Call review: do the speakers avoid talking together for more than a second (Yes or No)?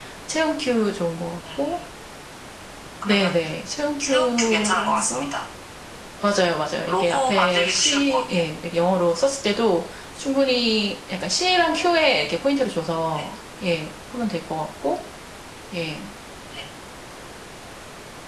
No